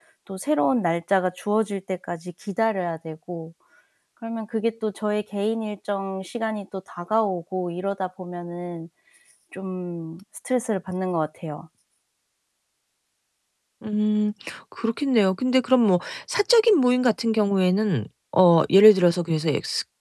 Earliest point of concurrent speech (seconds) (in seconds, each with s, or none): none